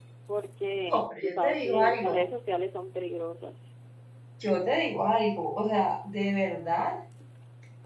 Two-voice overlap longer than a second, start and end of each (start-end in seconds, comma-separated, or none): 0.9-2.2